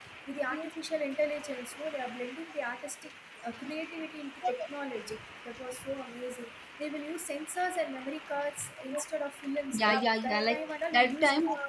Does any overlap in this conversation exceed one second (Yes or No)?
Yes